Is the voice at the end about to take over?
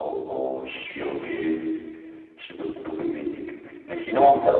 No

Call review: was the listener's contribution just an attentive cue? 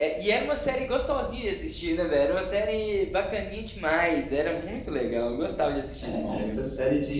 No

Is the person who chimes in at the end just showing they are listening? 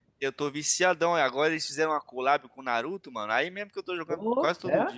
Yes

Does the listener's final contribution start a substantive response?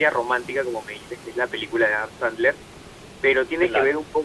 No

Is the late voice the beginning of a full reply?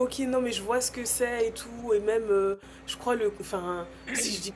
No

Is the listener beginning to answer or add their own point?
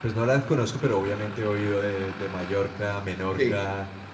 Yes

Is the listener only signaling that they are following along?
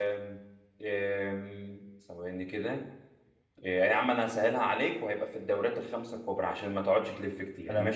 No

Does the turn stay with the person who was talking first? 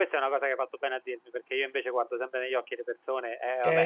No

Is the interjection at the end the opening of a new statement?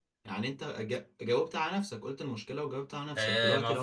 Yes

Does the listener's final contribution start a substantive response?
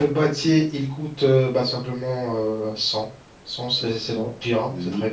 Yes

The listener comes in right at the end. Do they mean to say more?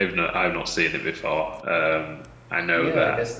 Yes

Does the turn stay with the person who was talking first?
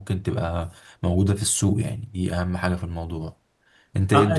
No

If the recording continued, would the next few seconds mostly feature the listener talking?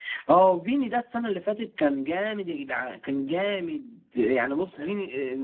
No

